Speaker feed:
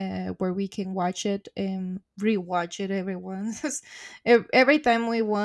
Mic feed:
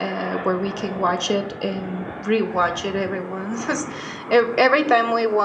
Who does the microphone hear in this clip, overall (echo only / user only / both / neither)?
echo only